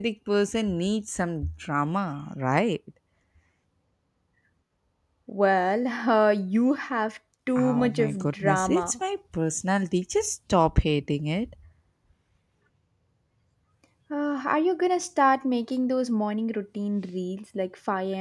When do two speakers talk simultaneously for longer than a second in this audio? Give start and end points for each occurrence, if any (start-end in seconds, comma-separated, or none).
7.6-8.9